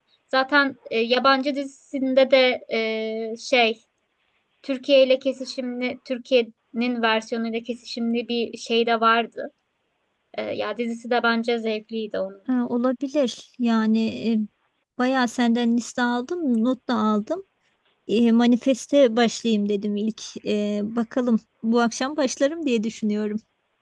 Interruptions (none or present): none